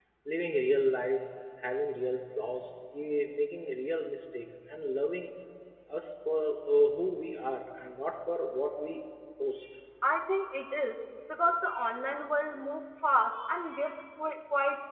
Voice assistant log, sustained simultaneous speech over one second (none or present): none